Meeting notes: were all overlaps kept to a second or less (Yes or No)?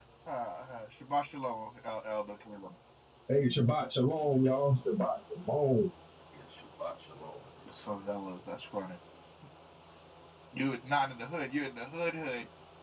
Yes